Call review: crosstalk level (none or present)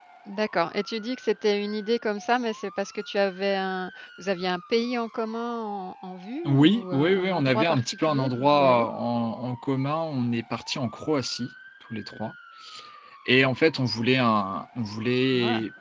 present